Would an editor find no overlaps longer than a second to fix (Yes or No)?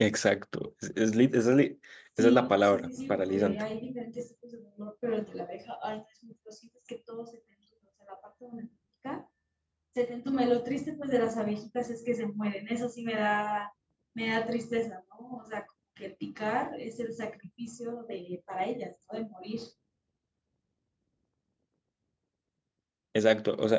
No